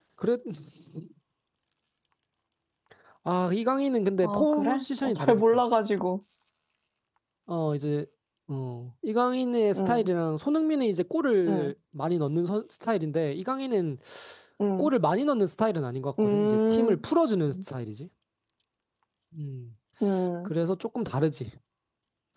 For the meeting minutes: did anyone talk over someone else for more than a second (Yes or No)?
Yes